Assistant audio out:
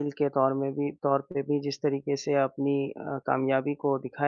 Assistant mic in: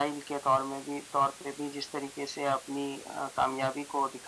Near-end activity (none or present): none